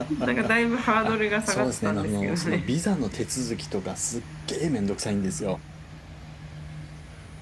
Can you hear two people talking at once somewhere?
Yes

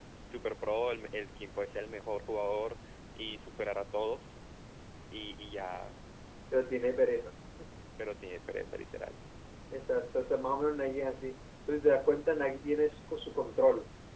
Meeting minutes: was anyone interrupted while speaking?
No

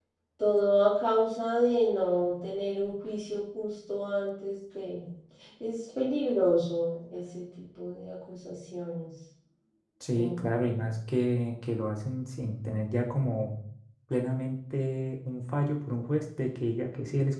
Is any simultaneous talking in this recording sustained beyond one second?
No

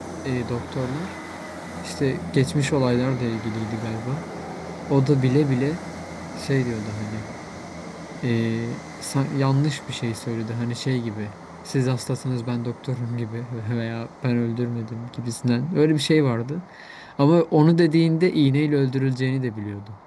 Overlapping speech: No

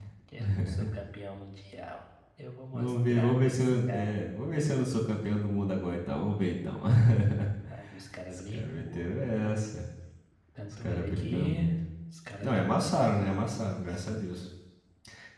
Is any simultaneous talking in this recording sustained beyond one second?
Yes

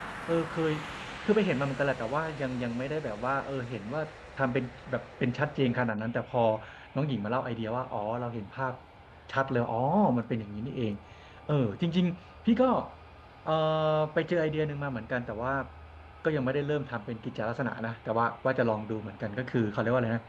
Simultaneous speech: No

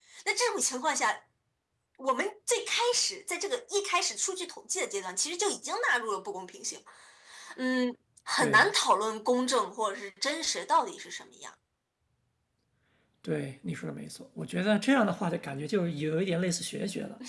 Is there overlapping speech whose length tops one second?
No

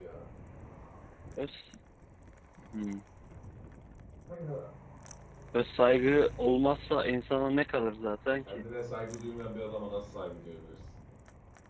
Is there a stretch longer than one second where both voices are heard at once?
No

